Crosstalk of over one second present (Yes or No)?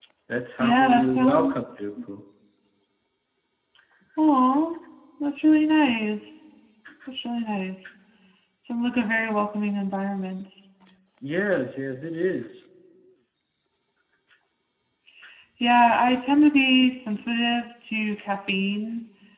Yes